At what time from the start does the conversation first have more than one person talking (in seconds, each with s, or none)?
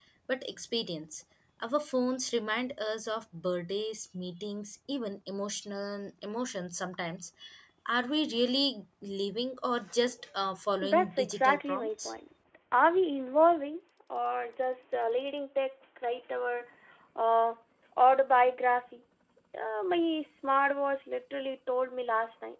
10.8 s